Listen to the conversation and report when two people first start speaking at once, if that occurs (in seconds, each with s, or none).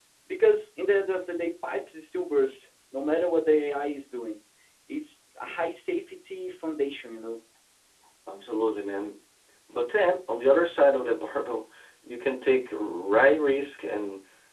none